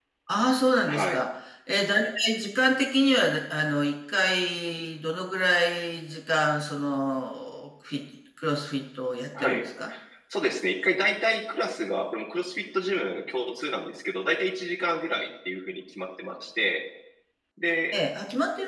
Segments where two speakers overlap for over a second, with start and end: none

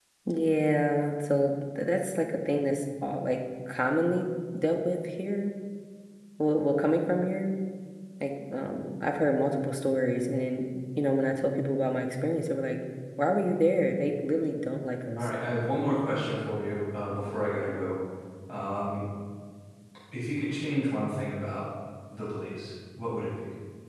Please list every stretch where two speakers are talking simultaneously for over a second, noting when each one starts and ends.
none

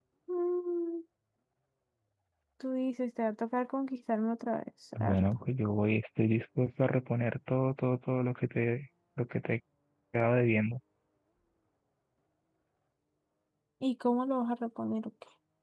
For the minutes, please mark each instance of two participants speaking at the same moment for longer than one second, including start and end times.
none

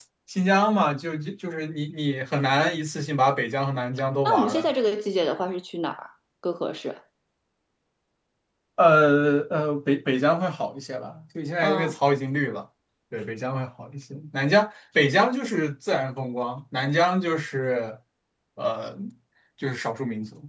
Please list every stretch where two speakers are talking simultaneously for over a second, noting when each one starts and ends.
none

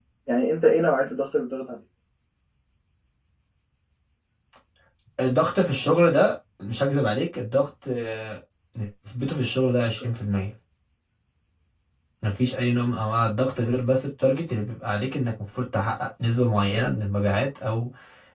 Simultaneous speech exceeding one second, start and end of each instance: none

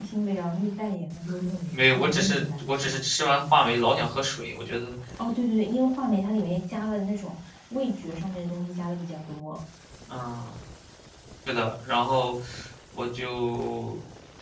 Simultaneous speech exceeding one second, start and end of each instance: 1.7-3.0

